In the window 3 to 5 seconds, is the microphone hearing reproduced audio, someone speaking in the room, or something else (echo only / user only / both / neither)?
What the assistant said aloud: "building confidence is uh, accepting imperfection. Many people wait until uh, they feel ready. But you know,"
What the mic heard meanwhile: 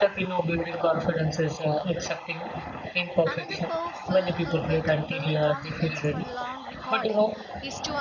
both